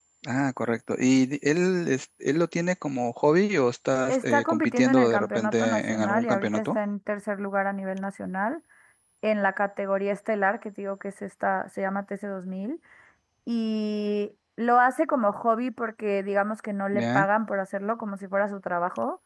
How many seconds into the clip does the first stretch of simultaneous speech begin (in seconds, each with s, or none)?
4.1 s